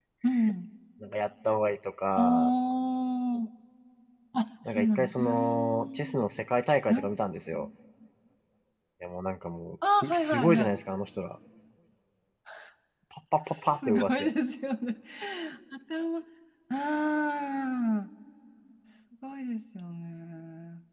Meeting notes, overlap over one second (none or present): present